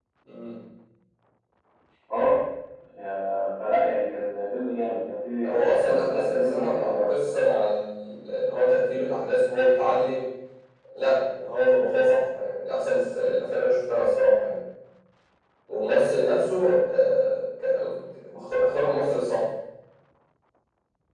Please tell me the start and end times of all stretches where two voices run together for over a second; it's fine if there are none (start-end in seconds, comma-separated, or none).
5.4-7.4